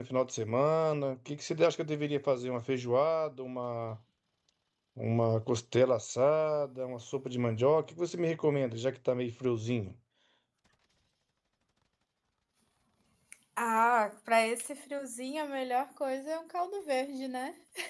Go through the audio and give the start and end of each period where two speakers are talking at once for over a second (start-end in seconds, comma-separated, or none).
none